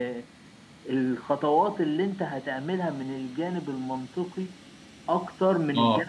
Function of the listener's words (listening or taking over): listening